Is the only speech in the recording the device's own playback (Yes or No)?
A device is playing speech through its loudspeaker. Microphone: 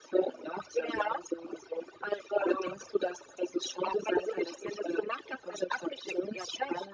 Yes